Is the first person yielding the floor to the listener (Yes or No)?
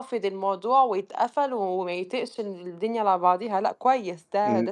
Yes